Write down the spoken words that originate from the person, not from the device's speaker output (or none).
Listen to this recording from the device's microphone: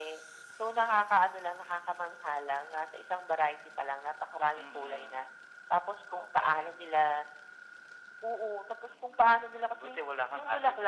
none